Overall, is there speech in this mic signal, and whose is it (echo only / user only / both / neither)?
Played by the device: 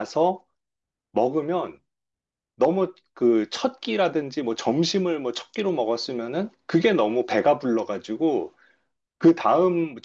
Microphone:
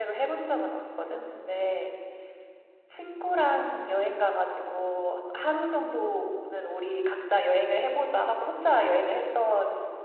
user only